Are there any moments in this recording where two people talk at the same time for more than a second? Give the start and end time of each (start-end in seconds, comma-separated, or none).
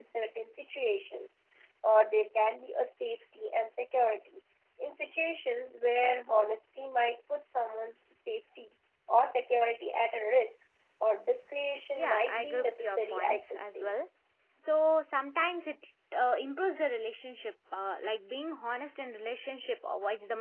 12.0-13.9